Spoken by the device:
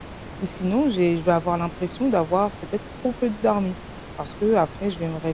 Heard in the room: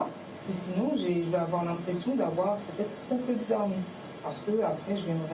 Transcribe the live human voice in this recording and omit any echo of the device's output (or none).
none